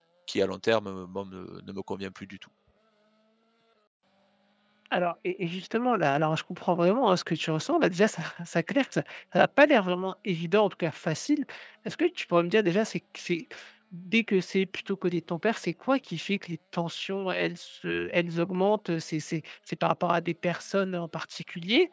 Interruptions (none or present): none